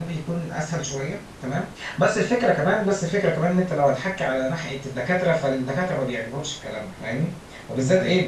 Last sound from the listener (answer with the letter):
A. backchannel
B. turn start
A